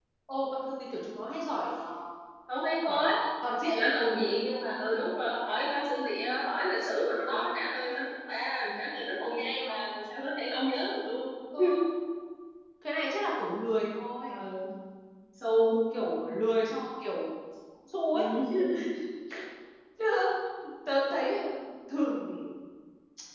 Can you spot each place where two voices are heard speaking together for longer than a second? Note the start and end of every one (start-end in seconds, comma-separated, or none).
none